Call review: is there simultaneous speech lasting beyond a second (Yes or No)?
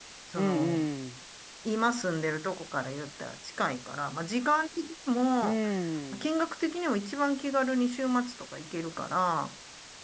No